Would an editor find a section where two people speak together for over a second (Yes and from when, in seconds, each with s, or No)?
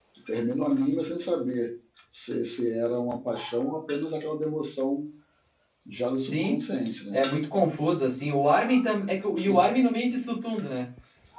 No